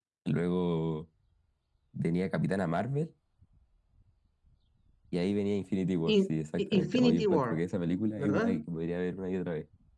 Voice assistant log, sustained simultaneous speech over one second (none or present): present